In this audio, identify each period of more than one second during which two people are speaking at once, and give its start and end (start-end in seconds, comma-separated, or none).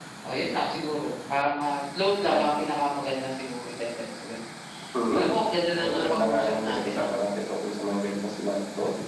5.7-7.0